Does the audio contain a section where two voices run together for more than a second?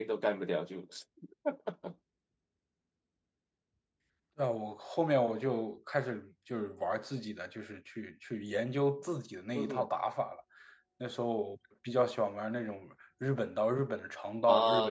No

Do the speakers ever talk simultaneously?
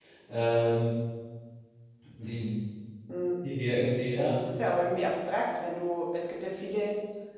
No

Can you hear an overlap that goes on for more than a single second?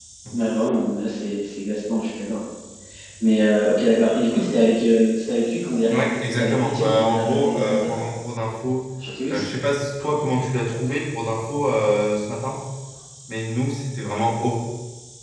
Yes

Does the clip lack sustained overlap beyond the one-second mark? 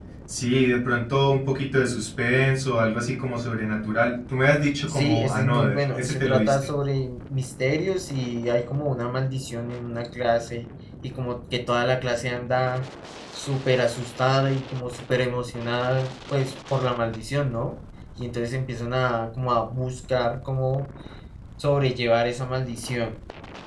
No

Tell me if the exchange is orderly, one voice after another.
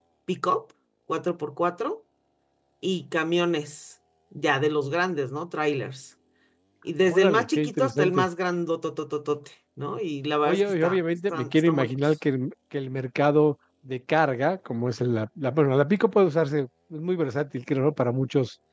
No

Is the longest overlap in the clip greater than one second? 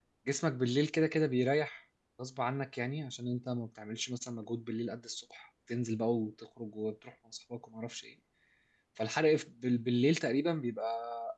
No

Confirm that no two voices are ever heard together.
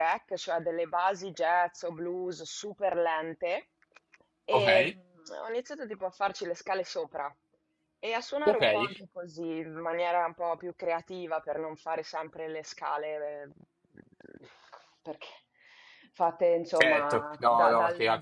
No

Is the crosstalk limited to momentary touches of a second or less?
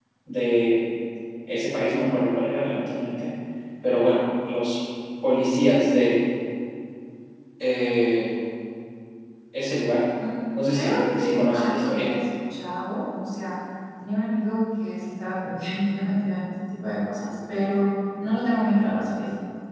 No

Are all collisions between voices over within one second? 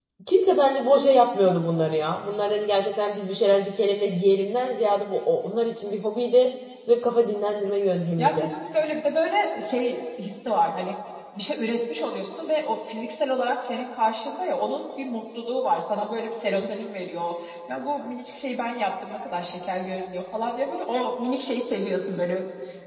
Yes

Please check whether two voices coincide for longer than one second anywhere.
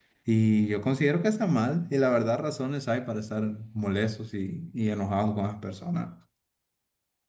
No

